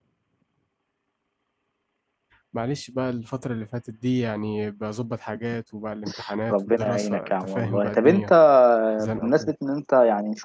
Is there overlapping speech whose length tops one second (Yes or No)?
Yes